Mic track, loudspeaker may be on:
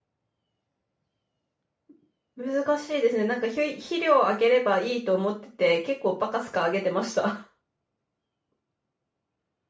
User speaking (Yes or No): Yes